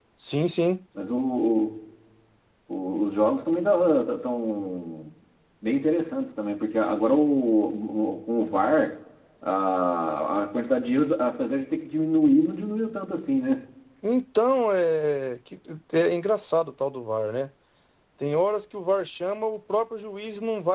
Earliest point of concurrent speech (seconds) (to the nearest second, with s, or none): none